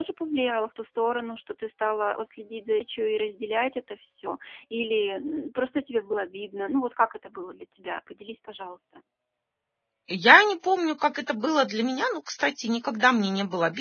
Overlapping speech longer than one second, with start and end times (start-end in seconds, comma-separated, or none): none